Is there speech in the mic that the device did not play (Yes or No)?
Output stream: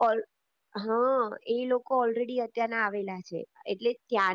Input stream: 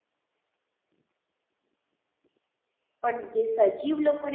Yes